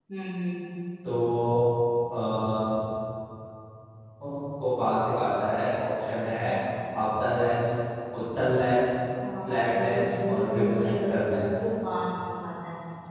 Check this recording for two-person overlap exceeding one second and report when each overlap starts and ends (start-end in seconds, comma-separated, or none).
9.4-11.5